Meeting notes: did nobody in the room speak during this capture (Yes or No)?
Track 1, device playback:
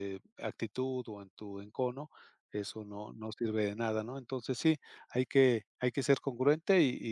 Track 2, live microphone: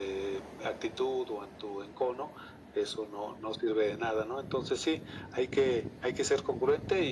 Yes